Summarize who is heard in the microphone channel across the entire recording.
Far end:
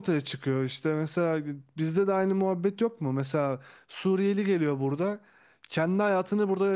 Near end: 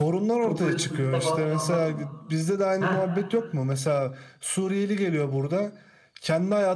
both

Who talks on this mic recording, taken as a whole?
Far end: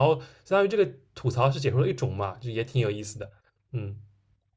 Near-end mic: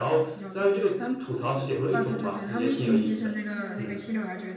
both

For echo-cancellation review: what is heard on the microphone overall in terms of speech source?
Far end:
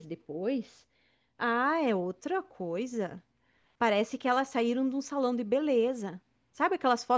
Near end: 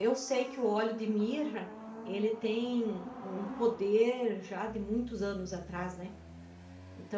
user only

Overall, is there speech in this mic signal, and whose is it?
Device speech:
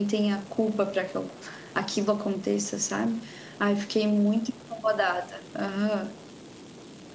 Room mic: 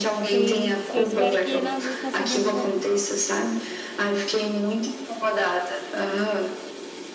both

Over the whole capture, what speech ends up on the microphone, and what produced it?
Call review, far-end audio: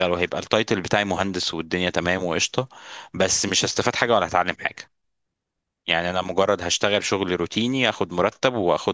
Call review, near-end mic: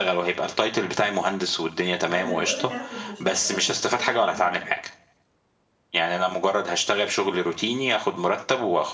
both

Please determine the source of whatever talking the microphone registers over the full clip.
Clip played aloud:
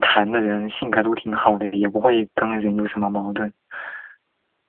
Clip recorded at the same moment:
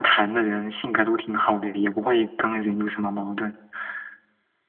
echo only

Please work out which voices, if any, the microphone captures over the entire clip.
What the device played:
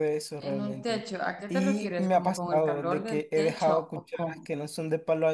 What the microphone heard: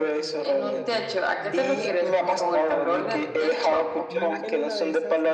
both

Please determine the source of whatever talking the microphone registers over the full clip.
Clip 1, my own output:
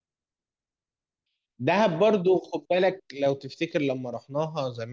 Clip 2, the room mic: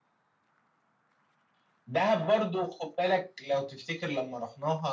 echo only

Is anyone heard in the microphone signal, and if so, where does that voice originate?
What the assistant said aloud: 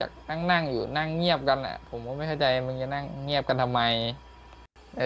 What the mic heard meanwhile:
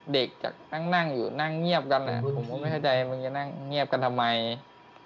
both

